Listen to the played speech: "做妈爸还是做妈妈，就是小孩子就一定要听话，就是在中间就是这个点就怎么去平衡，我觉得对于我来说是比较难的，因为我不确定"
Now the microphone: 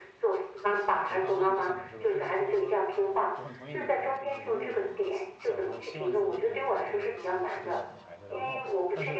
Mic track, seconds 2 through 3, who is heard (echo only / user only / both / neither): both